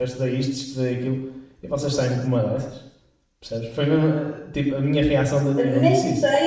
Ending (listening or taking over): taking over